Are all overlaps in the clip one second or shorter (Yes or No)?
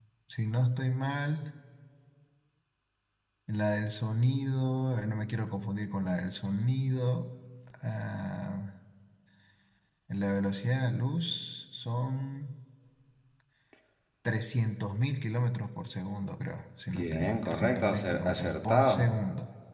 No